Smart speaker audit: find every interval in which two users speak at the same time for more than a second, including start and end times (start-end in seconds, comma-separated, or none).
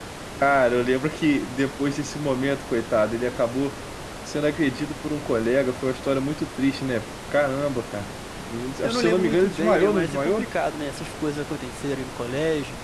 8.8-10.5